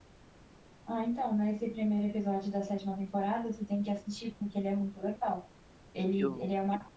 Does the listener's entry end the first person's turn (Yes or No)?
No